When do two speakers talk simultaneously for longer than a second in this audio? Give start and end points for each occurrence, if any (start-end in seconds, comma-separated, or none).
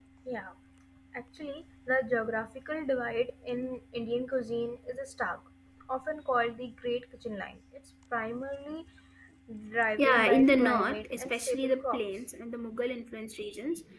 10.0-12.0